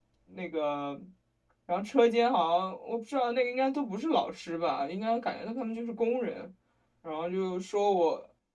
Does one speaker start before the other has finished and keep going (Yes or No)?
No